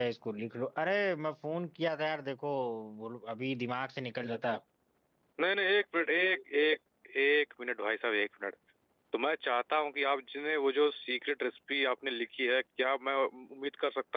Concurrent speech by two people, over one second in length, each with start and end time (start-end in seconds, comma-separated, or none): none